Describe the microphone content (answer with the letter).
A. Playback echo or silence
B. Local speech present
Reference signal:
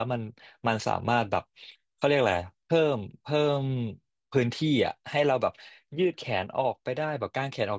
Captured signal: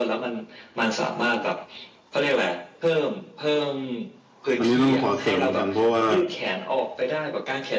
B